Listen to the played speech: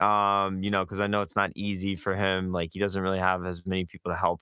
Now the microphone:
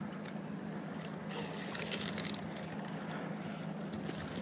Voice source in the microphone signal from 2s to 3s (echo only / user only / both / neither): neither